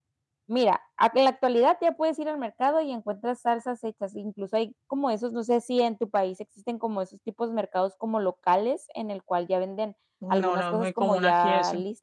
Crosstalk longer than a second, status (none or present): present